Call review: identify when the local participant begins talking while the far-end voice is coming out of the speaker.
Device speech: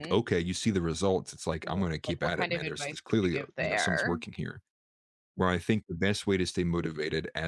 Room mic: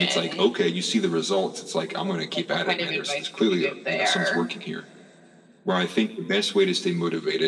none

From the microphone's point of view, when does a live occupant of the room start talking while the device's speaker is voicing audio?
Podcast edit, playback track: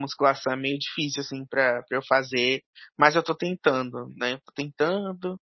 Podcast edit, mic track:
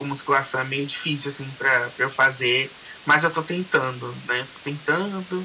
none

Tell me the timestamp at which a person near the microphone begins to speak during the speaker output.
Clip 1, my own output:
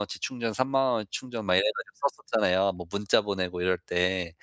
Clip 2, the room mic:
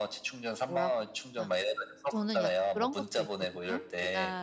0.6 s

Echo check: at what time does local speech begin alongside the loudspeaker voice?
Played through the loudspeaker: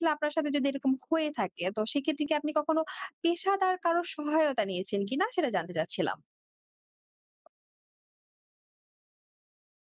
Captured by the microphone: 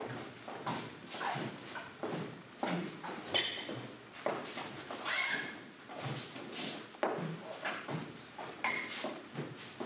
none

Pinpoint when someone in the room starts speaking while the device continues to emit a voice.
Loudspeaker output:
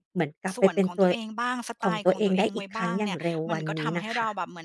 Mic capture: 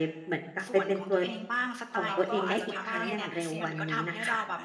2.0 s

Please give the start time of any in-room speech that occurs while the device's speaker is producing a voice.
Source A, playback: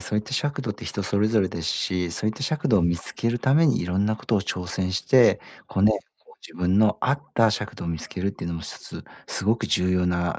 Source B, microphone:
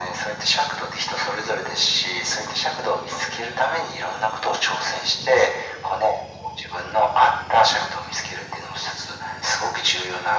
none

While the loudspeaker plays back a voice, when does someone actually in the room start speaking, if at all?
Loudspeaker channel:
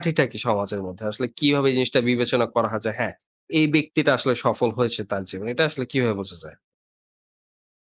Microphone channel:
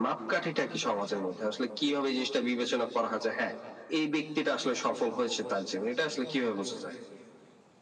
none

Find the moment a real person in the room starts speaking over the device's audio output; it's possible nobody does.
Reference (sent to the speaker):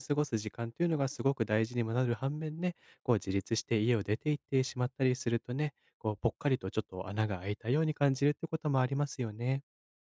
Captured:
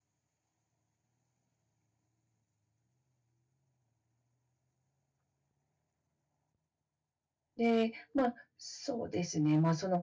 7.6 s

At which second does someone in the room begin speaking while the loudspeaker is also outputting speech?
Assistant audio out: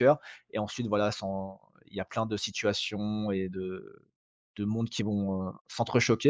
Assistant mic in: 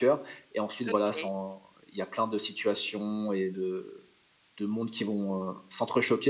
0.9 s

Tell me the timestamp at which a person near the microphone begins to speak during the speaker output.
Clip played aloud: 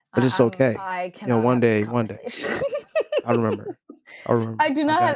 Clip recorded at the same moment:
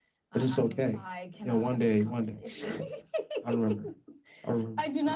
none

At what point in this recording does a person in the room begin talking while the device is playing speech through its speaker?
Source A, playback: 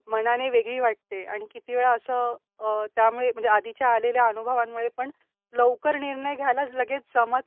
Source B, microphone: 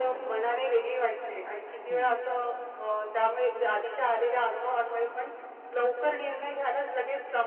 1.9 s

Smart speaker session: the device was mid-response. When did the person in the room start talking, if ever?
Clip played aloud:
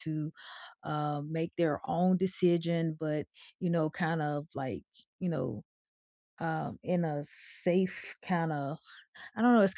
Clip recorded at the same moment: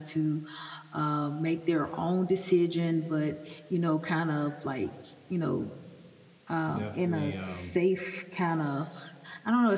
6.7 s

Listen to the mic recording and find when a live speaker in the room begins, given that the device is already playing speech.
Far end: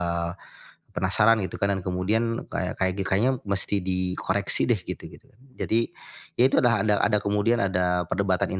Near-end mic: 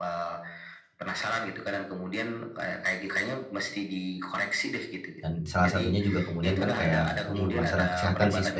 5.2 s

